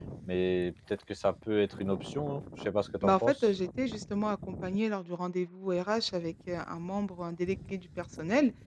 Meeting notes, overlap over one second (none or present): none